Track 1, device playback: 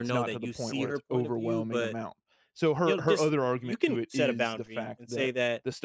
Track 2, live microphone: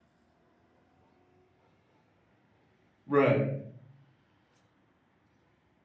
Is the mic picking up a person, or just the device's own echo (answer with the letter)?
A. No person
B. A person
B